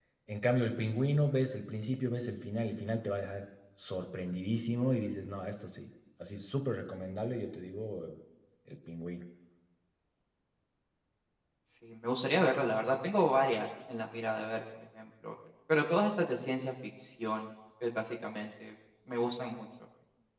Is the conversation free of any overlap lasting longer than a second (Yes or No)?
Yes